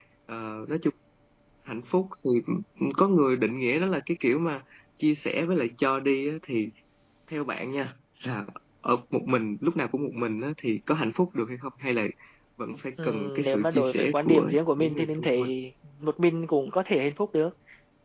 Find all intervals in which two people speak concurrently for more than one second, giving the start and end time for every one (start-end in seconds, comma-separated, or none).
13.0-15.4